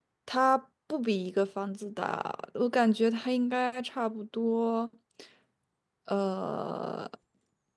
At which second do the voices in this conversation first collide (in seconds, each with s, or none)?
none